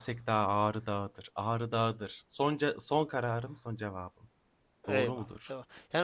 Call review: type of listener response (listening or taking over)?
taking over